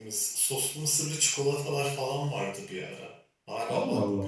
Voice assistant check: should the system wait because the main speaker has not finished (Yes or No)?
Yes